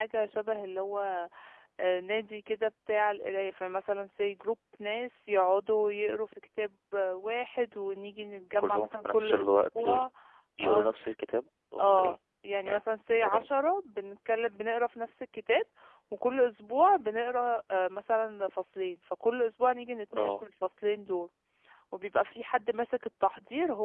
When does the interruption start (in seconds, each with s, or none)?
8.6 s